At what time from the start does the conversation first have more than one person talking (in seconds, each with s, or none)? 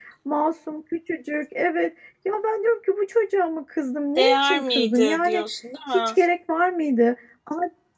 4.2 s